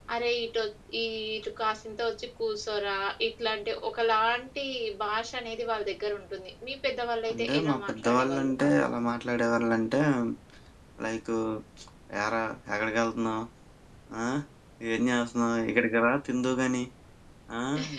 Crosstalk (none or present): present